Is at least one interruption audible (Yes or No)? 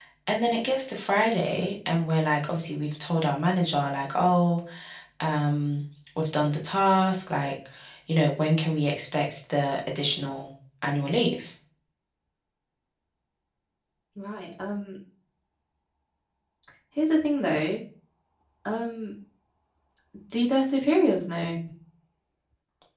No